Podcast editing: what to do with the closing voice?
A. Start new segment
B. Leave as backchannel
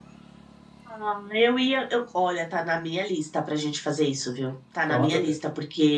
B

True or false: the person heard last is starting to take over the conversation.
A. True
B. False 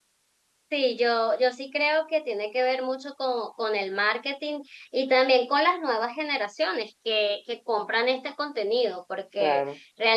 B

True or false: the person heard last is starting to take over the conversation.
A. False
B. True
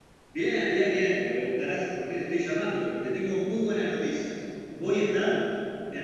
A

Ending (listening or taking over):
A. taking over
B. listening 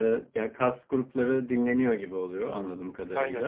B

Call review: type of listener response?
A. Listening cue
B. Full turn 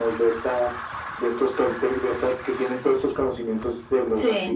A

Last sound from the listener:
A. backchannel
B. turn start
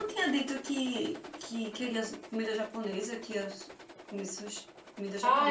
B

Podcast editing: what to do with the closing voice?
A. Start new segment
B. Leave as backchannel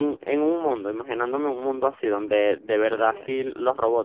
B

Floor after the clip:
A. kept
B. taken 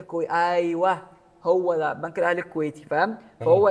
A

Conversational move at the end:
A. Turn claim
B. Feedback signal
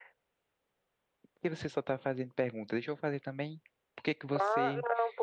A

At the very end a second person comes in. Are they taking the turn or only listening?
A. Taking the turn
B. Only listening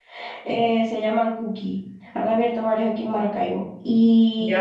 A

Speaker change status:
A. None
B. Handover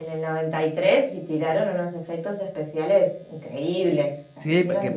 B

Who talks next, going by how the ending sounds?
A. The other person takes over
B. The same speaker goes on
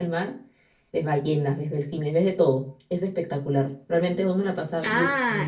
A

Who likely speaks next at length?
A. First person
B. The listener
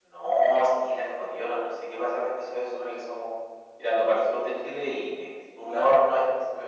A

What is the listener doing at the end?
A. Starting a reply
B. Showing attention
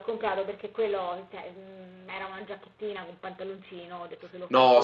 B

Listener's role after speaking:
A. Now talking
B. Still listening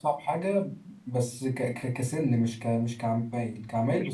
B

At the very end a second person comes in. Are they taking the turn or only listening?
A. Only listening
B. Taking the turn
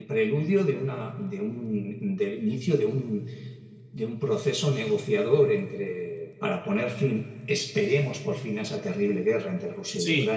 B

